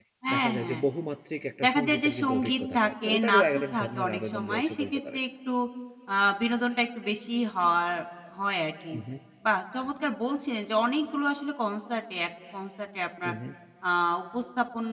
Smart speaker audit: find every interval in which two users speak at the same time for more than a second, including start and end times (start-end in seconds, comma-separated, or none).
1.6-5.2